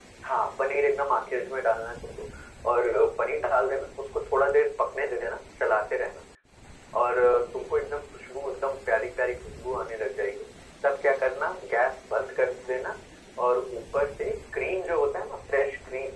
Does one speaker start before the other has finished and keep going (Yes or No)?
No